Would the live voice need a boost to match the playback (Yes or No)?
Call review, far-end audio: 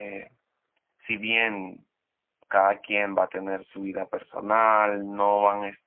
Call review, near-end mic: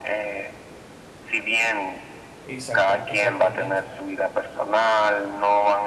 Yes